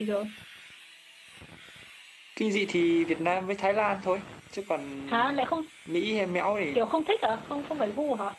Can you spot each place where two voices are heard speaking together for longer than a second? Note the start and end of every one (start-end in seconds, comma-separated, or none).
none